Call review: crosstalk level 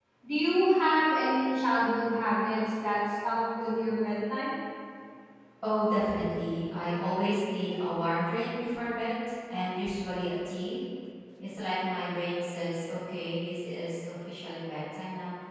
none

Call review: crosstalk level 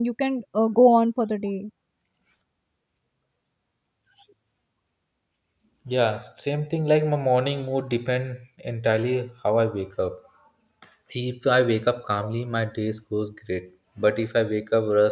none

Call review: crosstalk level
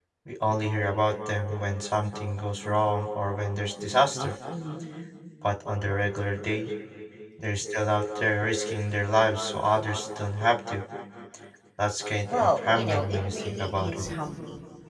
present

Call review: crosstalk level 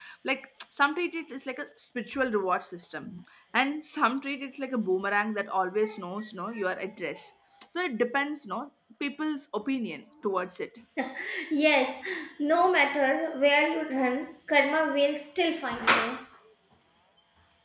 none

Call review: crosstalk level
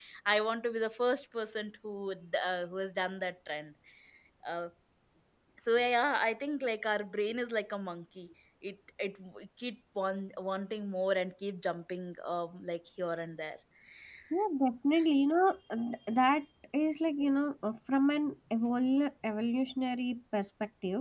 none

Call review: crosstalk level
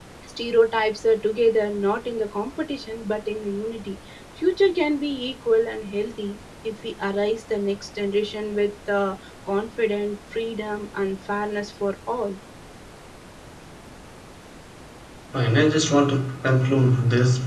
none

